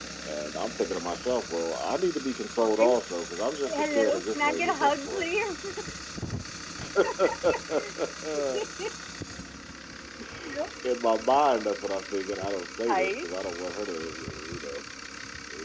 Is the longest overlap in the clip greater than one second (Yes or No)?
Yes